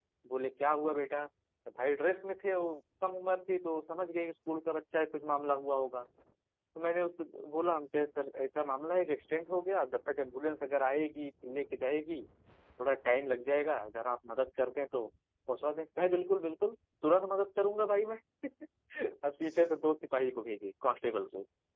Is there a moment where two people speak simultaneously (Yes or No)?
No